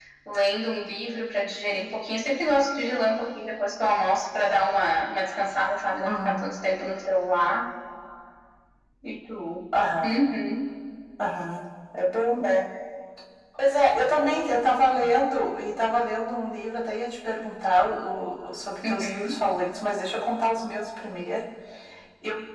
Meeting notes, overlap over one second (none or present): none